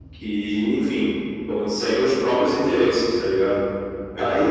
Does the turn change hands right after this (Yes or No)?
Yes